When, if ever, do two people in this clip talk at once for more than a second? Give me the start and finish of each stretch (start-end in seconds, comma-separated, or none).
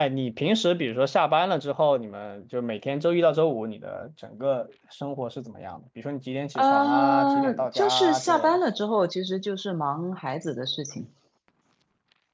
6.6-8.6